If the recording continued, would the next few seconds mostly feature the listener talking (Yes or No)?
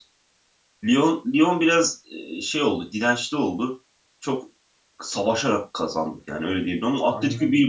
No